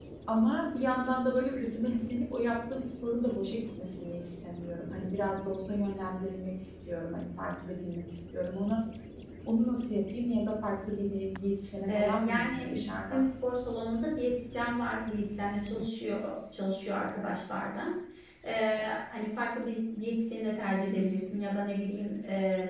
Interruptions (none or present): present